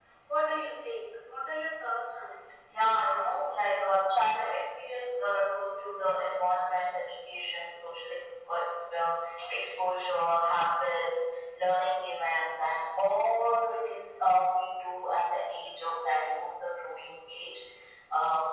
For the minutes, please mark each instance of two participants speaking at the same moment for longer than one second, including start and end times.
none

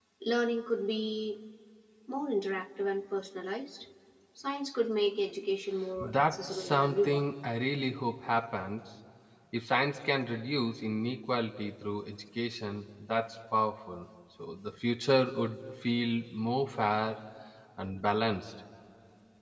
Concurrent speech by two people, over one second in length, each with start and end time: 6.0-7.3

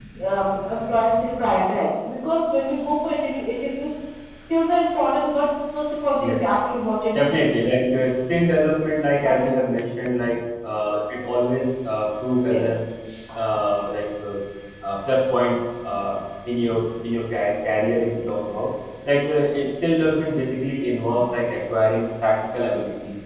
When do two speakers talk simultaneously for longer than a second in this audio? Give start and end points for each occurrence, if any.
none

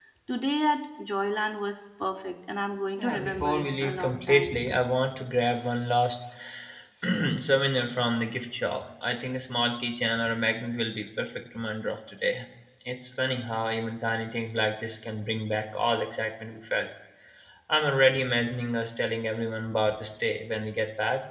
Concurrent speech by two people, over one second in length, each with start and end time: 3.0-4.6

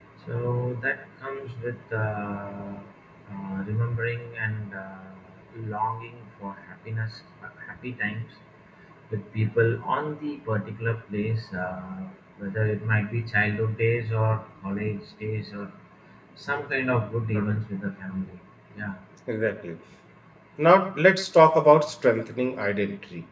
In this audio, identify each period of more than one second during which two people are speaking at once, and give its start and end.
none

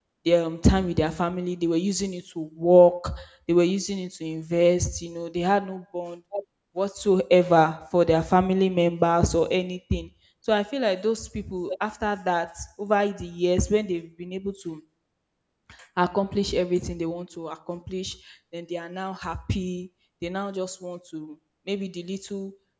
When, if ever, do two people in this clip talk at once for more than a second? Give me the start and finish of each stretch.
none

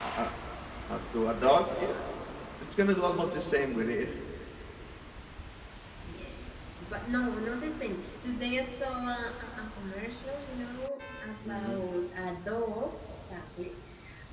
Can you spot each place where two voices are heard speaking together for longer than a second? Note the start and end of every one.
none

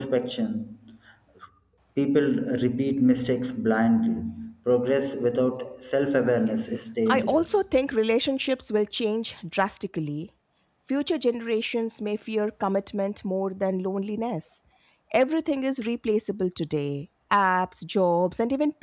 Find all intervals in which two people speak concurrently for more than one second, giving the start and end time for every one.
none

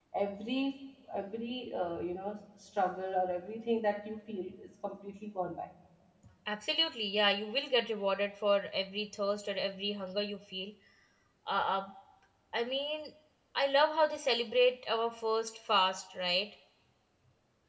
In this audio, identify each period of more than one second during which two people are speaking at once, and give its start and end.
none

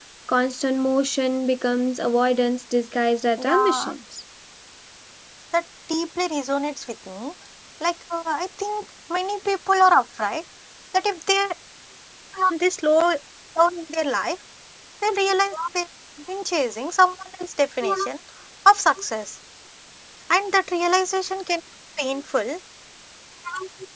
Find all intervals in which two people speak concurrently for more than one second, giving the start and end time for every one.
none

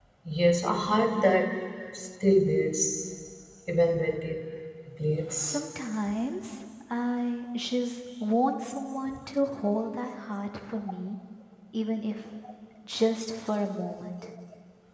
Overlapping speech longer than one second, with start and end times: none

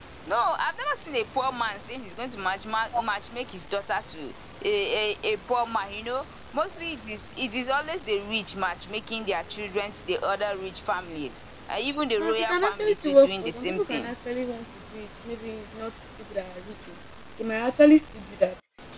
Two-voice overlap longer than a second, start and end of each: 12.2-14.1

